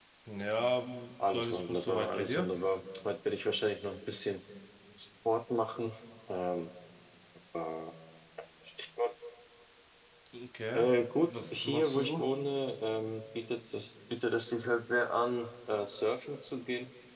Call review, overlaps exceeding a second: present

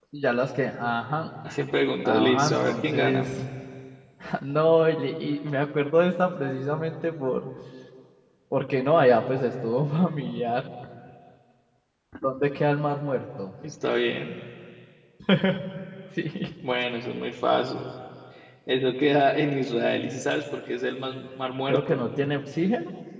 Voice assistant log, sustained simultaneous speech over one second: present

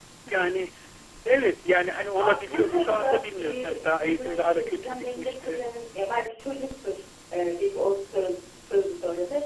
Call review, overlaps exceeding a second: present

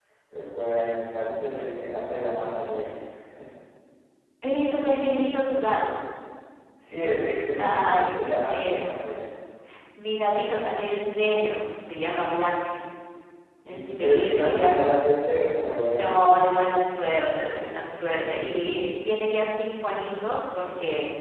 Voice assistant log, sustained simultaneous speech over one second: present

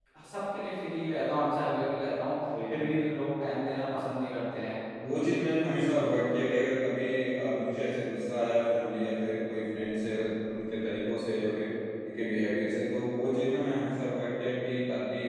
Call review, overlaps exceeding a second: none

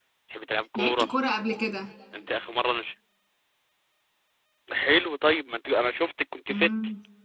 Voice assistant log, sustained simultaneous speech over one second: none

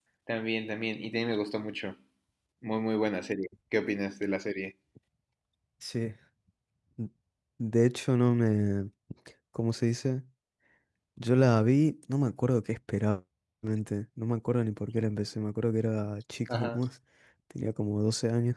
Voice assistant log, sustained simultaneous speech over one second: none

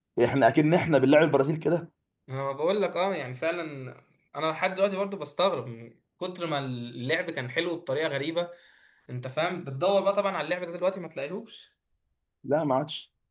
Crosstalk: none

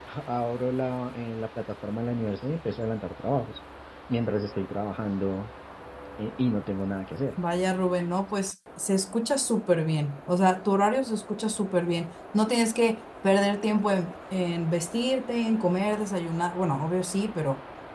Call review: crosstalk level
none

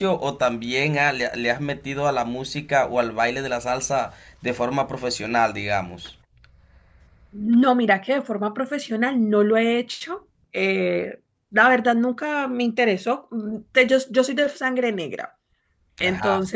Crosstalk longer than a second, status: none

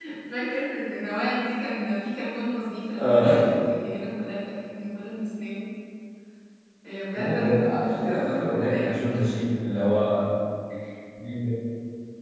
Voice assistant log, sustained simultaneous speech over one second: present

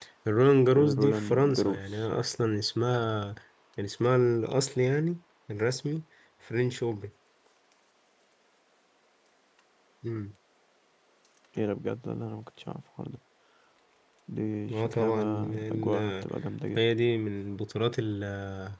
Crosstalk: present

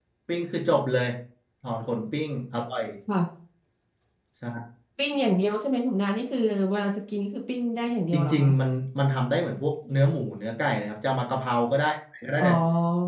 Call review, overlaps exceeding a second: none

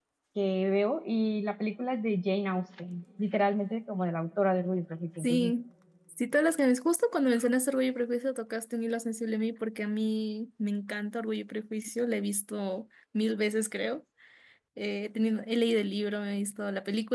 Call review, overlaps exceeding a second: none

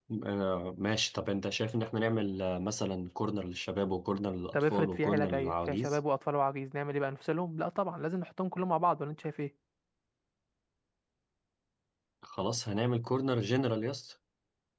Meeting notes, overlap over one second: present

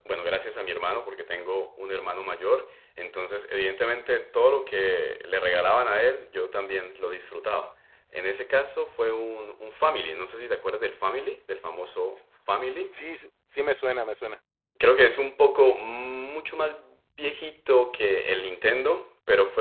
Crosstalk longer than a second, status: none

